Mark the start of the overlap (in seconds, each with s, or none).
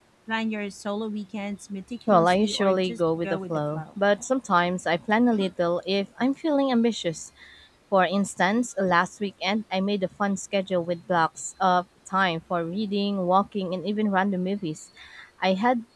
2.0 s